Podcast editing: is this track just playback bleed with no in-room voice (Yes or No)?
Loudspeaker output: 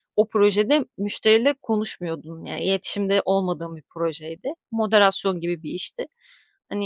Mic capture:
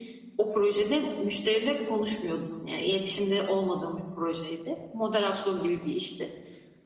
Yes